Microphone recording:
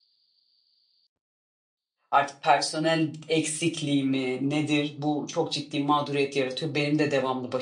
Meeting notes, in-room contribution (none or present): present